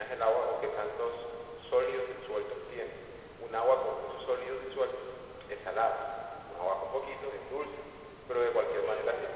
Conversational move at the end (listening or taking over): listening